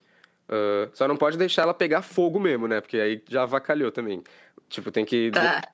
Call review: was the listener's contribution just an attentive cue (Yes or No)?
Yes